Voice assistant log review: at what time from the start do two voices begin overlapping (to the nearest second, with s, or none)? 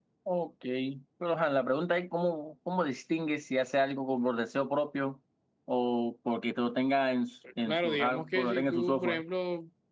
8 s